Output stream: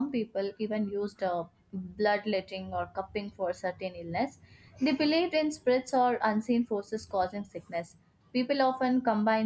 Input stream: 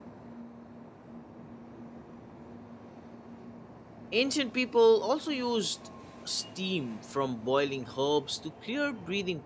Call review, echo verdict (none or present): none